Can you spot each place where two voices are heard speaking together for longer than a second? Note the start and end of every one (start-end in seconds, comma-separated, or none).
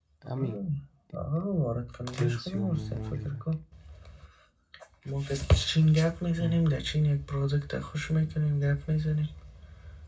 2.1-3.4